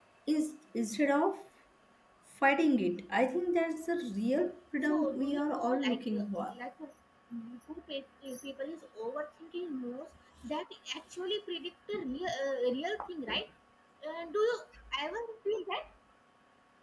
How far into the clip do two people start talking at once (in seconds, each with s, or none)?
4.8 s